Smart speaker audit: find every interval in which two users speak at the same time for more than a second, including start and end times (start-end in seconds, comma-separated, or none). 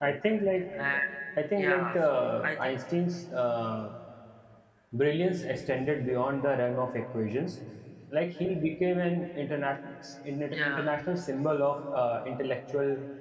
1.6-2.8